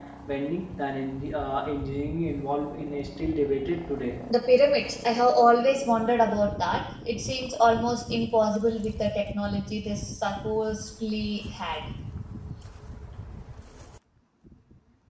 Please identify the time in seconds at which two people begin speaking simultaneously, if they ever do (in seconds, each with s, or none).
none